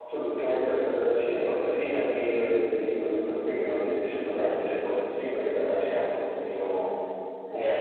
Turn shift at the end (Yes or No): Yes